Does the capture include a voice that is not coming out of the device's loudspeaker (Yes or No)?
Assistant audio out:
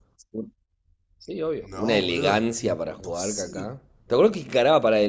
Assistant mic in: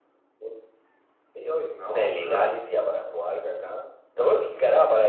No